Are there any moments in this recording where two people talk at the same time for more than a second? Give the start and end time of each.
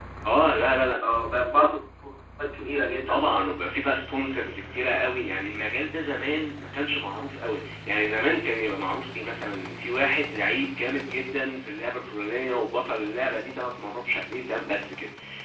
none

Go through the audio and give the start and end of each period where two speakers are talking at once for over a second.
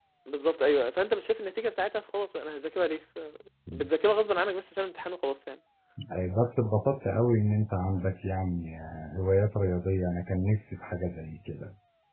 none

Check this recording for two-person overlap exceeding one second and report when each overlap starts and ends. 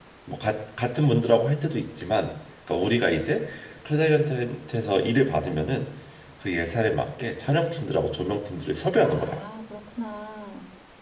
none

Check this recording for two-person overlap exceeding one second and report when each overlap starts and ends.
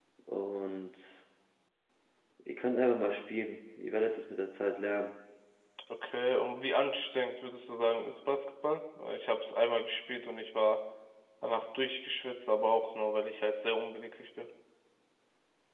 none

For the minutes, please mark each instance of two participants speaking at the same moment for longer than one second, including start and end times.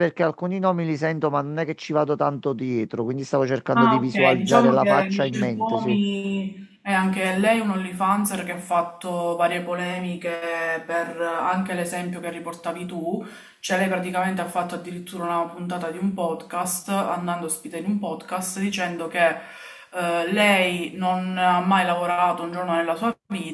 3.8-6.0

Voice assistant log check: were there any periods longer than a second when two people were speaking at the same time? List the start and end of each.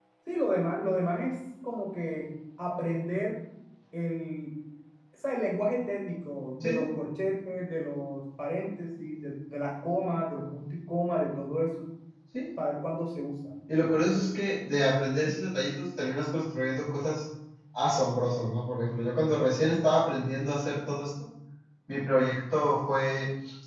none

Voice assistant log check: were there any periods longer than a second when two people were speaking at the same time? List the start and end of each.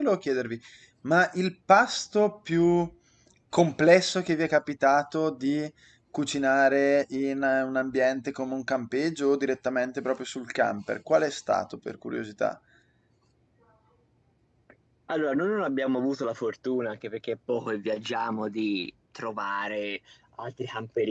none

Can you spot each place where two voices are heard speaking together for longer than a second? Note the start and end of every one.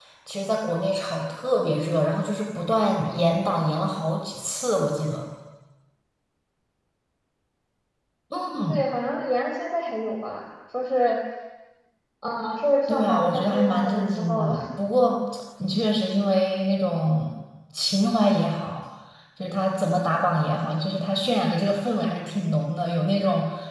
12.9-14.5

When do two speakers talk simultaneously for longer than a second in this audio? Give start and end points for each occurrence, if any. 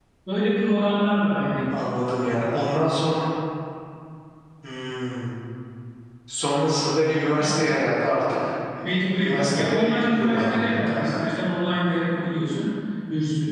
8.8-11.2

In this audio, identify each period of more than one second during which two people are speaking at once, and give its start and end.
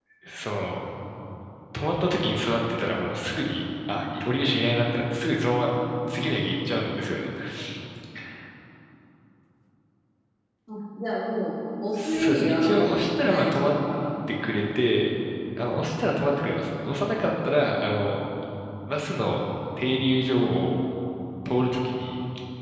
12.0-13.7

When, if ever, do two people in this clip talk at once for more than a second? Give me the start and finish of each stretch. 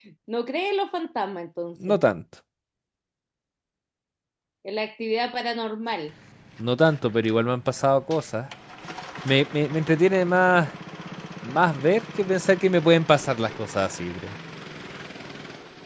none

